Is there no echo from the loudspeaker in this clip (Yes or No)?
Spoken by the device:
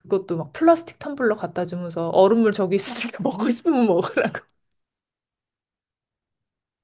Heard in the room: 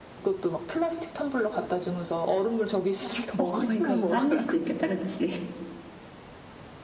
No